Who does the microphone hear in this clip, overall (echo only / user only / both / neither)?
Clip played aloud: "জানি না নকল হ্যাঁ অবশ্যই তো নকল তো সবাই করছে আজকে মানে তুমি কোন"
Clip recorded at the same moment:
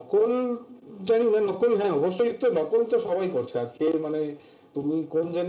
echo only